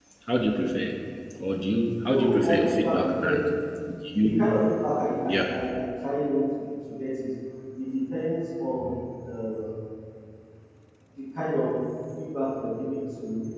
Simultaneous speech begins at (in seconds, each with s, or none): 2.1 s